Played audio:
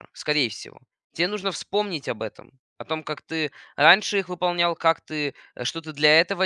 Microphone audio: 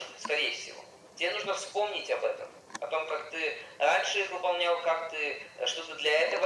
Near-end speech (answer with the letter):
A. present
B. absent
B